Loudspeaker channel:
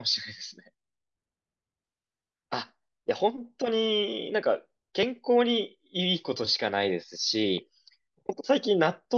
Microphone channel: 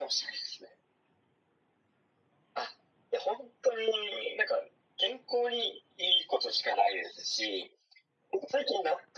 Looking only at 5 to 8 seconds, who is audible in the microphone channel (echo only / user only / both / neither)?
echo only